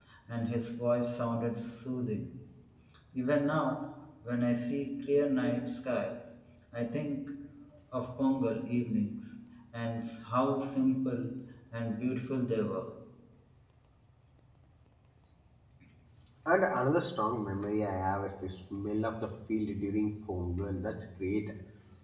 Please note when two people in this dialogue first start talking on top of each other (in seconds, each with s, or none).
none